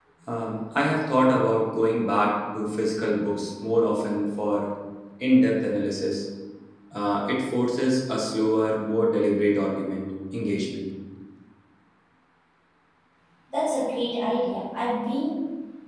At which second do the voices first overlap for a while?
none

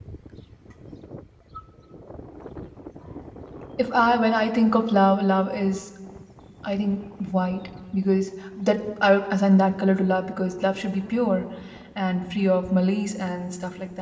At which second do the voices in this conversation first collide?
none

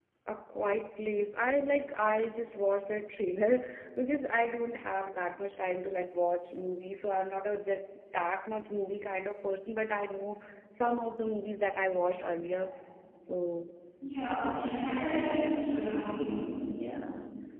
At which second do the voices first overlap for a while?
none

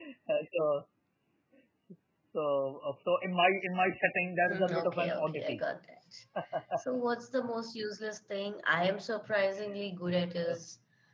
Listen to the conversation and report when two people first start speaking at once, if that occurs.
4.4 s

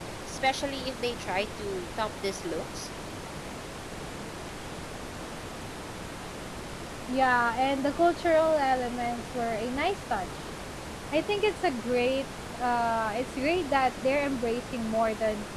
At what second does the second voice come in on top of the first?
none

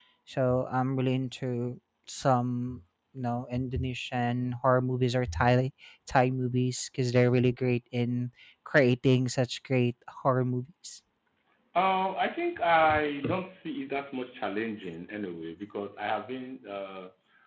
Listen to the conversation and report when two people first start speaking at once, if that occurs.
none

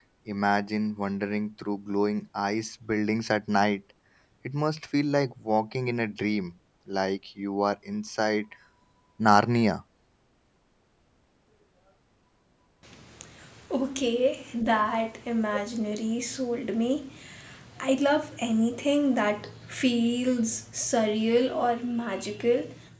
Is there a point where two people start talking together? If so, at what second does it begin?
none

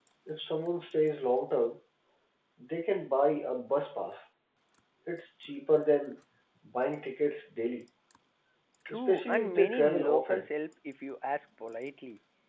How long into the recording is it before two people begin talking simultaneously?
8.9 s

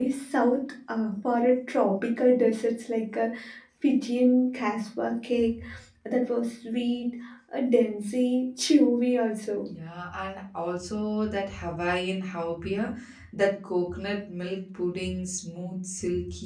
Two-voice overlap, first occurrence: none

